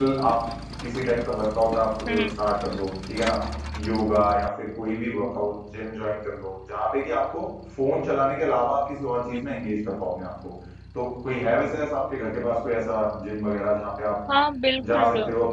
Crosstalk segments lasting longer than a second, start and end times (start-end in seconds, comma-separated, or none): none